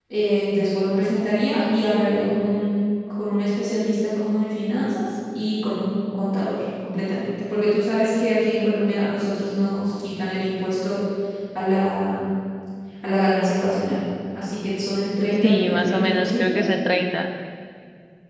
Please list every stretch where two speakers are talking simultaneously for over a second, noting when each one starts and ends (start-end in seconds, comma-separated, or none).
15.4-16.7